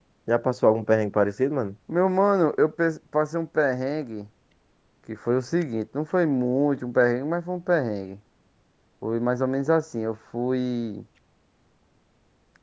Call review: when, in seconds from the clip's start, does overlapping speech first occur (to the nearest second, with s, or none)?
none